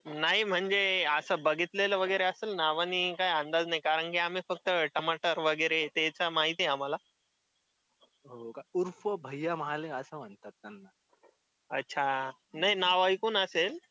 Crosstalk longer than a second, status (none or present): none